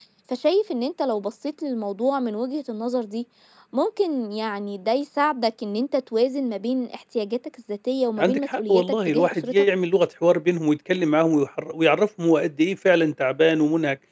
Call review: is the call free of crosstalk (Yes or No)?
No